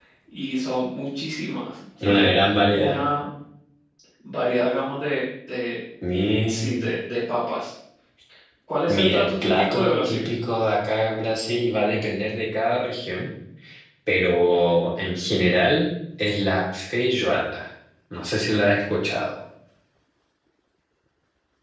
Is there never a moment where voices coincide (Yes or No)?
No